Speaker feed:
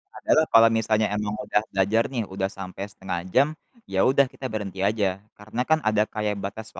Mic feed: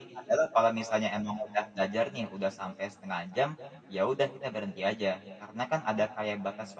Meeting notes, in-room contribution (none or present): none